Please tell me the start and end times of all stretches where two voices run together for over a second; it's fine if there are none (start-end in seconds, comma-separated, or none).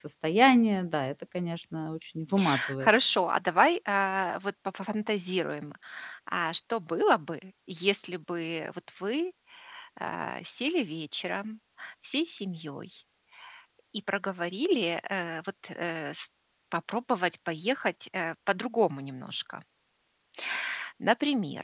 none